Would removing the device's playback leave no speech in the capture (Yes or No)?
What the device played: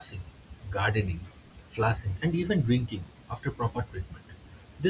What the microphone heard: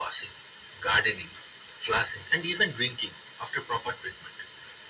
Yes